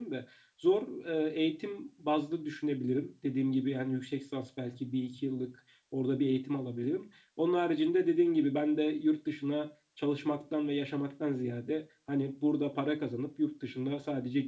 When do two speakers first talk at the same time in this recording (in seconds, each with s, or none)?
none